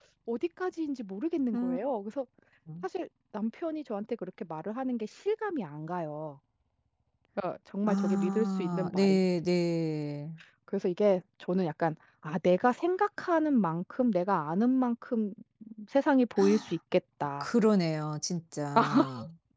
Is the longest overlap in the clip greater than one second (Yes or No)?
Yes